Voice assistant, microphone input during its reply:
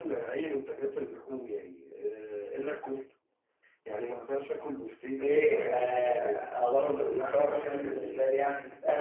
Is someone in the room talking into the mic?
Yes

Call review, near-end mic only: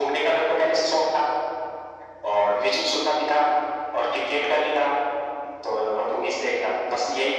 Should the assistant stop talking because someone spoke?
No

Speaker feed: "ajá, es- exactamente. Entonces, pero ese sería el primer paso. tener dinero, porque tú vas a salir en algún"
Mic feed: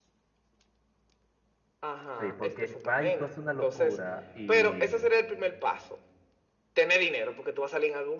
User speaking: Yes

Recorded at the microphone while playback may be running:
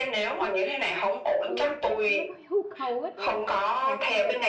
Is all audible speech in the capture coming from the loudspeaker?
No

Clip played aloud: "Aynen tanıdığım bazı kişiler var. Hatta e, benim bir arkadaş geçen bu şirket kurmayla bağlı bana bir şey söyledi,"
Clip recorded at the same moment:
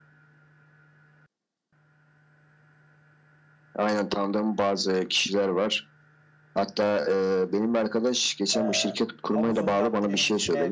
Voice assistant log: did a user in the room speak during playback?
Yes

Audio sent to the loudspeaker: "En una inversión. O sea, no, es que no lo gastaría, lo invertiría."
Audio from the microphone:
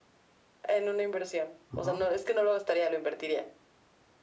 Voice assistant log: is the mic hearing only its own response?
No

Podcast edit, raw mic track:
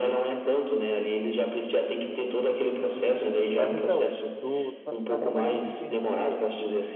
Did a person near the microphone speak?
Yes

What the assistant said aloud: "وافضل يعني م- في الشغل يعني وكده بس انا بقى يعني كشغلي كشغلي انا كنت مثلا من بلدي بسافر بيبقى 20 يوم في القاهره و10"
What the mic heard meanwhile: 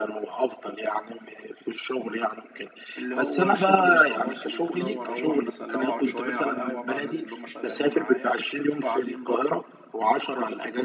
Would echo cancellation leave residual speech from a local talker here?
Yes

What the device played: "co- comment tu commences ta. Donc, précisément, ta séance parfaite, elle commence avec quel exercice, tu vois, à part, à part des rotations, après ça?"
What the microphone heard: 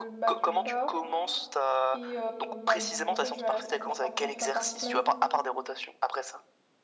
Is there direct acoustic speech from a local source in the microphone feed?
Yes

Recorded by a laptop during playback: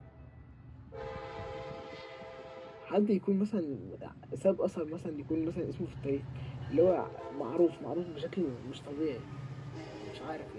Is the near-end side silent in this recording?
No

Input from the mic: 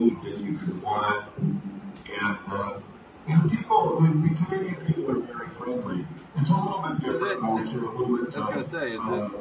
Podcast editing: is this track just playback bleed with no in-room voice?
No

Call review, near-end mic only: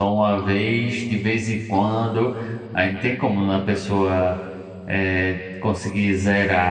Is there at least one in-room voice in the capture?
Yes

